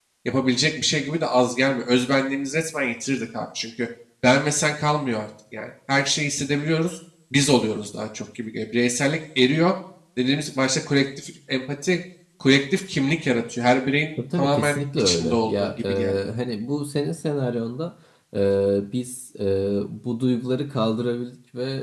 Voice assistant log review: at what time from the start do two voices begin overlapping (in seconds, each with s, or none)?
14.2 s